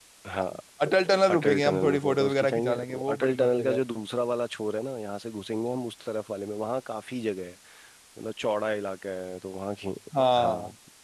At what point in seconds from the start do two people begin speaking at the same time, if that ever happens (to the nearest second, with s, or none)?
1 s